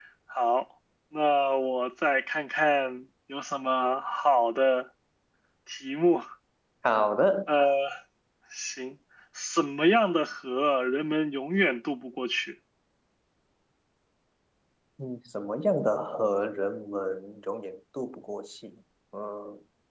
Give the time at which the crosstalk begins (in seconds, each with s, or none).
none